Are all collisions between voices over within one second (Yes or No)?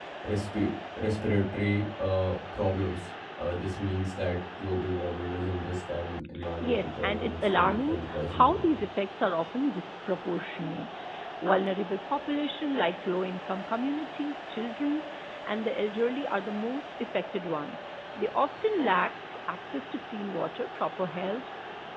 No